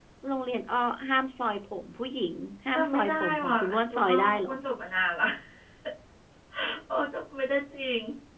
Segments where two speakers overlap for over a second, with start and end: 2.7-4.5

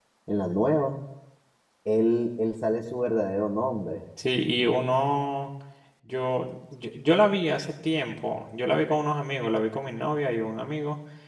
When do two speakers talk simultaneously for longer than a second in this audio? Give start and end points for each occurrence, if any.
none

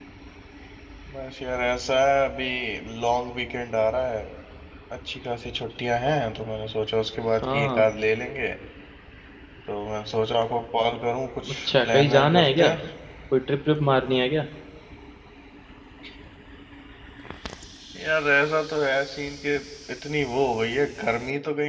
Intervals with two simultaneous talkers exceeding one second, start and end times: 11.5-12.7

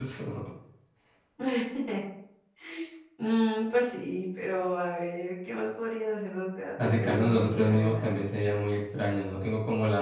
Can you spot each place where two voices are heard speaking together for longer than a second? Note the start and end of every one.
6.8-8.3

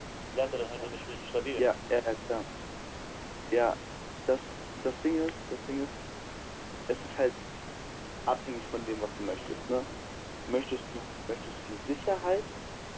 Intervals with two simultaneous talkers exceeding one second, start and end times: none

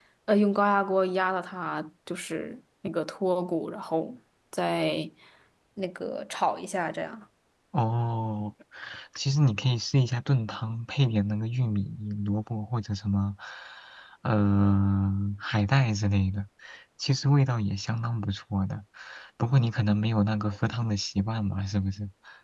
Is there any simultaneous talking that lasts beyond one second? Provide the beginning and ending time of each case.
none

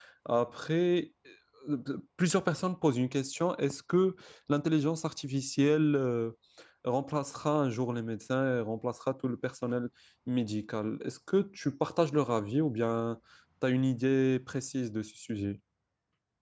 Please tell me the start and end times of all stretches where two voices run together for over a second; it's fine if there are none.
none

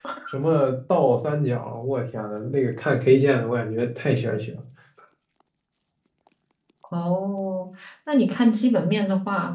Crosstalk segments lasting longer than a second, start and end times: none

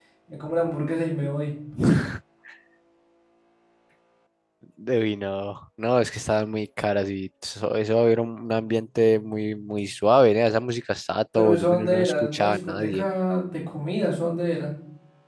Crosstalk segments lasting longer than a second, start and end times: 11.3-13.0

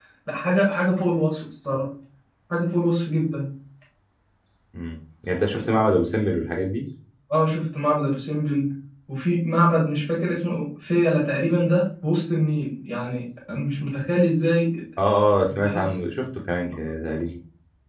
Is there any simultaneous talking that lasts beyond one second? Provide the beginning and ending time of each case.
none

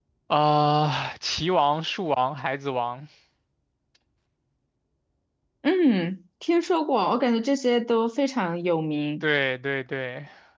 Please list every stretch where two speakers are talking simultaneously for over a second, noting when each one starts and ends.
none

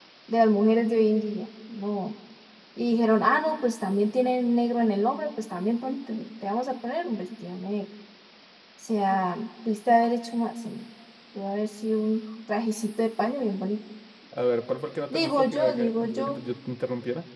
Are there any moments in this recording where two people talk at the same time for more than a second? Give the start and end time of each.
15.1-16.4

